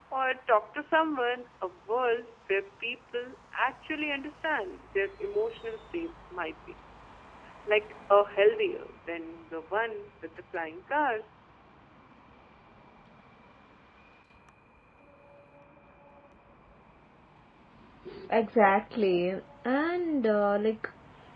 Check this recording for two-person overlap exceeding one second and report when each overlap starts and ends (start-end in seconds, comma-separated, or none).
none